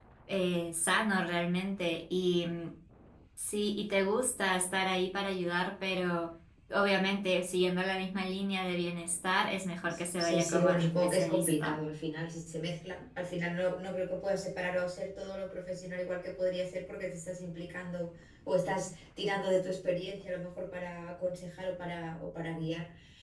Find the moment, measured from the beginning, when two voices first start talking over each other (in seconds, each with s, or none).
9.8 s